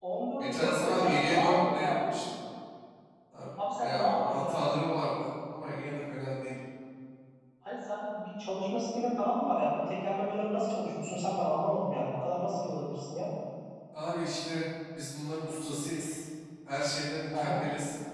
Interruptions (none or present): present